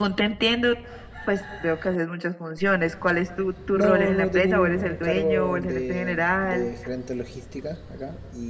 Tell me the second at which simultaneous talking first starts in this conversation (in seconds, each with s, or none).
3.7 s